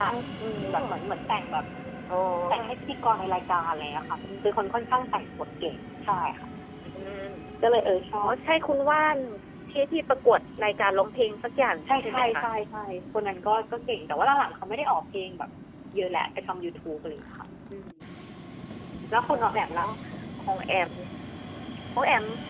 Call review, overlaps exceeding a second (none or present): none